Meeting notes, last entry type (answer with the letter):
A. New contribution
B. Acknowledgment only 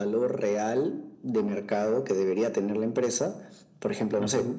B